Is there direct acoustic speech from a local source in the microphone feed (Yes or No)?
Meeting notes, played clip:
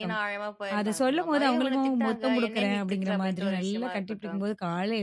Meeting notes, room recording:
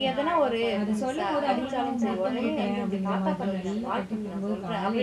Yes